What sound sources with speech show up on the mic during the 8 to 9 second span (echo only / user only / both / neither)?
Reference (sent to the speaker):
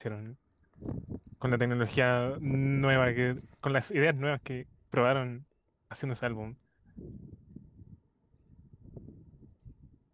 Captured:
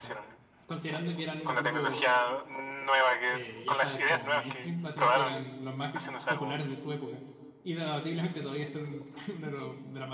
user only